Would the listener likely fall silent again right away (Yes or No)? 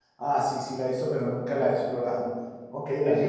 No